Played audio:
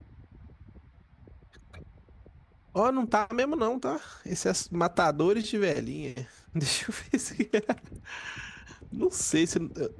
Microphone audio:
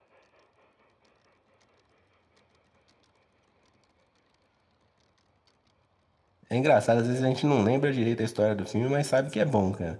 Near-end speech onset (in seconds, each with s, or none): 6.5 s